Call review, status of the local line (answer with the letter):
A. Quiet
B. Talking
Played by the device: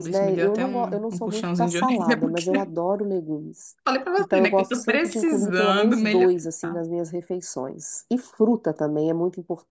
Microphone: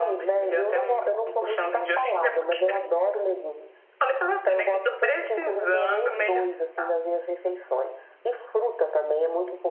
A